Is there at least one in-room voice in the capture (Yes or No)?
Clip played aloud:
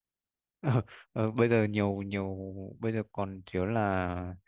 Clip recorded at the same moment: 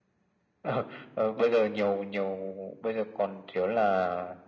No